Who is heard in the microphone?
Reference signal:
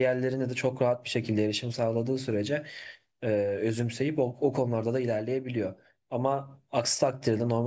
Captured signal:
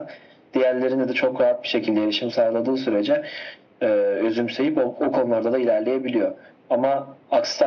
echo only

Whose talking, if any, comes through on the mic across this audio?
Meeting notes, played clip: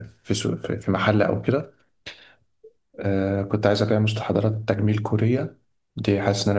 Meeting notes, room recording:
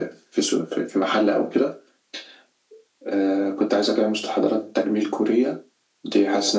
echo only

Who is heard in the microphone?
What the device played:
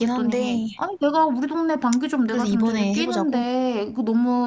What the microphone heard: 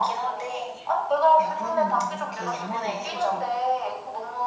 both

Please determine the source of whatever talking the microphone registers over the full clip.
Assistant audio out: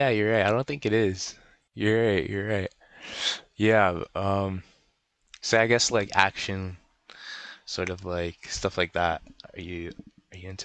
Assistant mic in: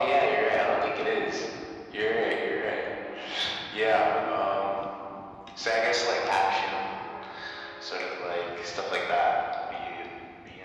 echo only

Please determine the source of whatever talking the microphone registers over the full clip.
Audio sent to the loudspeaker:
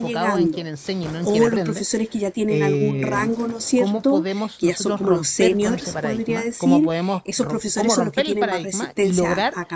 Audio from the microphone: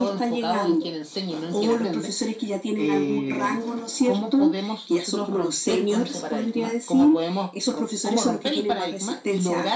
echo only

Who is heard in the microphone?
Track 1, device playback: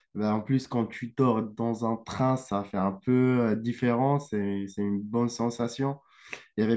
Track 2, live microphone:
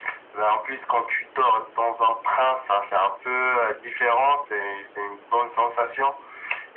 echo only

